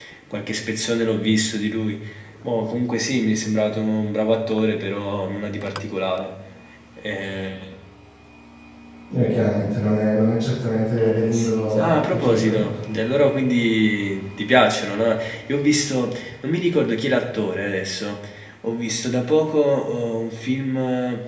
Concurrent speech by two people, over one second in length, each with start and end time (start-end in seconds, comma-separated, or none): 11.0-12.6